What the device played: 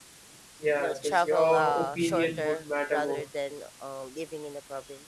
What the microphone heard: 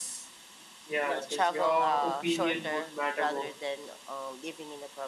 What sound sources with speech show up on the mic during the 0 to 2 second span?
echo only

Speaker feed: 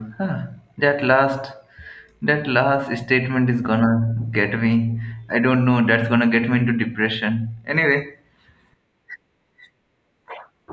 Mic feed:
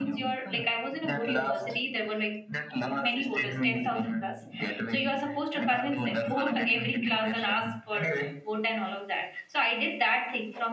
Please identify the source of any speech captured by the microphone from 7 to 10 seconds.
both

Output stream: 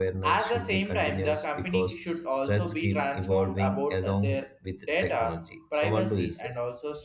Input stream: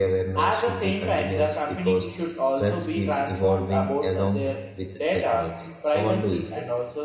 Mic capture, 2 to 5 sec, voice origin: echo only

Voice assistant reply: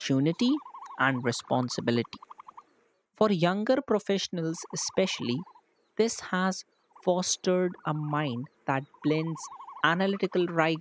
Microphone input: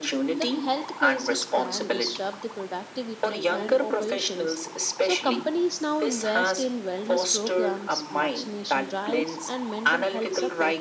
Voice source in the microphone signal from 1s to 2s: both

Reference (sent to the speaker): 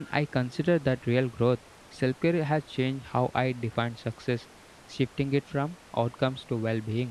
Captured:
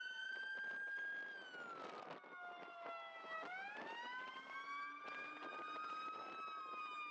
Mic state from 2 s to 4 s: neither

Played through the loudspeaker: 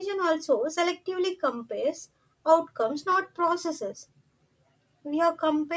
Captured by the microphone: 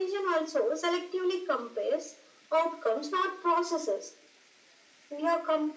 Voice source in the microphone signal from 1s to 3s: echo only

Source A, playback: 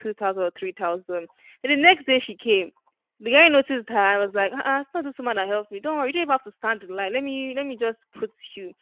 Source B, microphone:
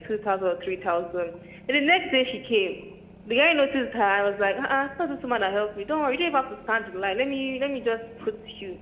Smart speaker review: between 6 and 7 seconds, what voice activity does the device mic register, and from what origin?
echo only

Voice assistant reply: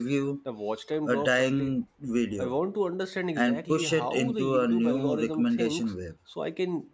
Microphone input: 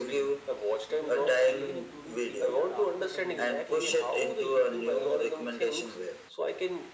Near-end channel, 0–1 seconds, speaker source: both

